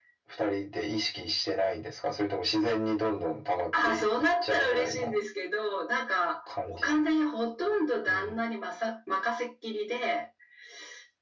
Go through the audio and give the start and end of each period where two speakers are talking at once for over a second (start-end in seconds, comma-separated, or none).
3.8-5.2